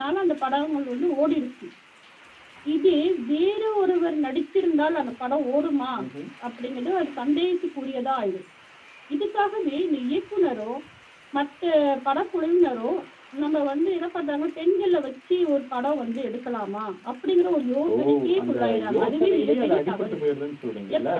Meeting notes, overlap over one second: present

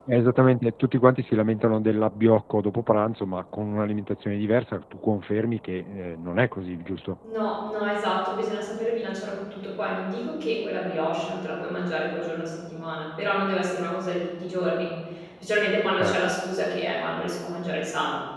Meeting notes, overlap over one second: none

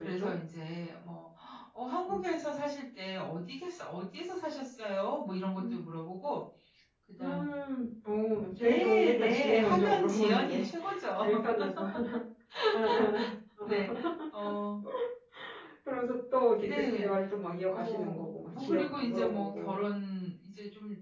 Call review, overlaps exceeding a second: present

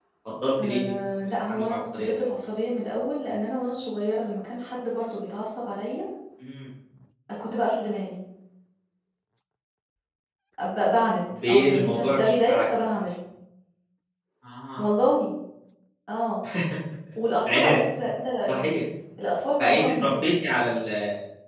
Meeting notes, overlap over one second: present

